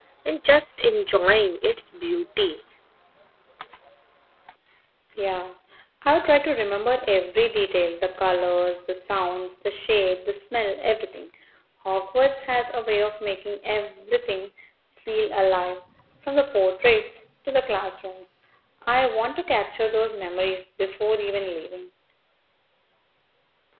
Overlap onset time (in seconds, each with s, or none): none